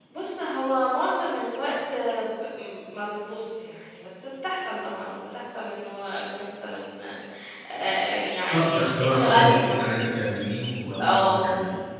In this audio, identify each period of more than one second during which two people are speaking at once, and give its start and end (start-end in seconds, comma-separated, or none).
8.5-9.9